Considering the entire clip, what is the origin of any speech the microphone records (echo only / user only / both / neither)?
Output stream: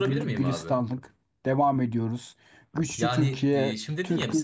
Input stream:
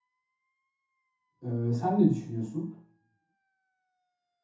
user only